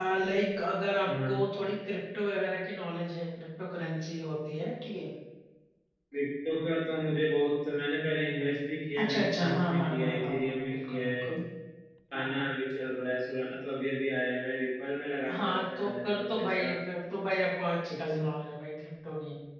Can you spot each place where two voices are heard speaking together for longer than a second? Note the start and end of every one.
9.0-11.2, 15.3-16.7

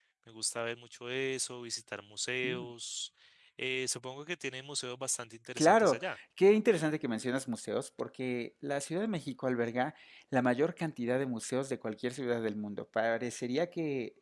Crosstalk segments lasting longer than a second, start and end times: none

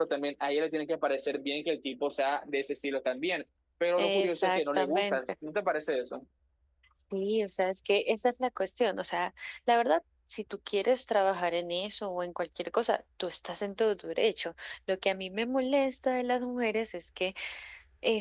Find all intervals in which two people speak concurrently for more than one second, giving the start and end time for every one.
4.0-5.2

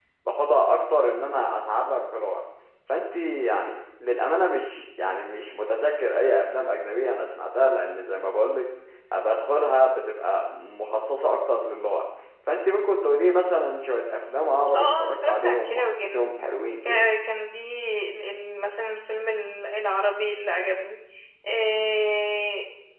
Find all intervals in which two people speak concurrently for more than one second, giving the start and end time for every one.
14.8-16.2

